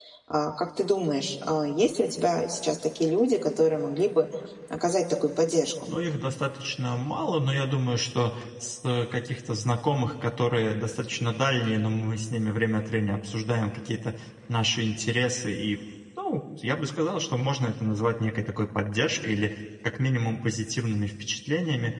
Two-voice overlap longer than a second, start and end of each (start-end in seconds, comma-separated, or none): none